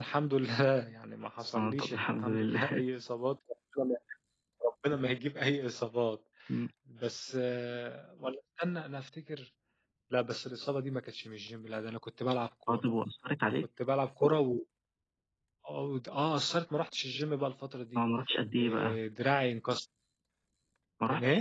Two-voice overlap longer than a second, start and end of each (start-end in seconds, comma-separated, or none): 1.6-2.8